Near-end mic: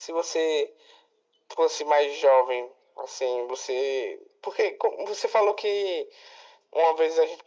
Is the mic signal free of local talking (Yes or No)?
Yes